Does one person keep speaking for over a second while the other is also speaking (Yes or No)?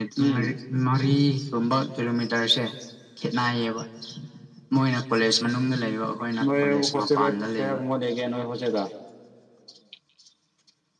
Yes